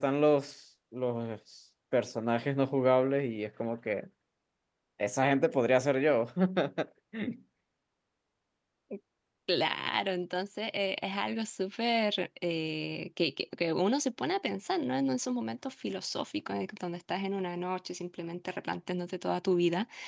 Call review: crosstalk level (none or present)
none